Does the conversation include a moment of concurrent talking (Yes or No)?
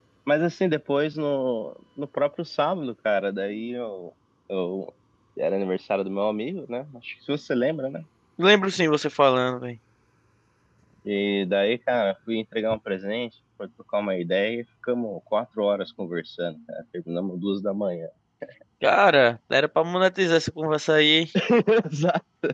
No